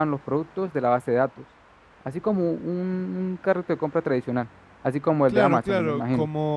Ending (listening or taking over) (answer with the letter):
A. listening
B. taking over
B